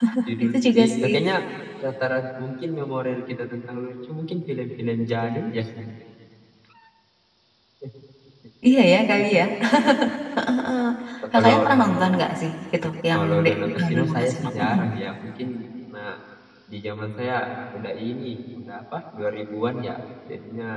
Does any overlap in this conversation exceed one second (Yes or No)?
Yes